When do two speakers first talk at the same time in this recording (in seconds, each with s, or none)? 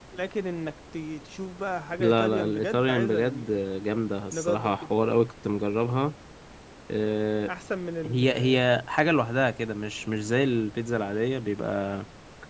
2.0 s